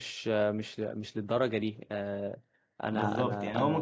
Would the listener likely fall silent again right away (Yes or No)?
No